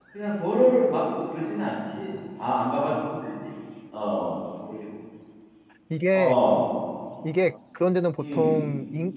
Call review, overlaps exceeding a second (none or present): none